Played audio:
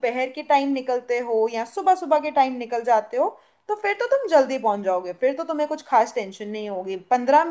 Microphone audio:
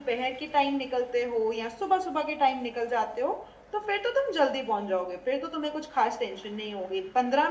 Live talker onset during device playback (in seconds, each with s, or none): none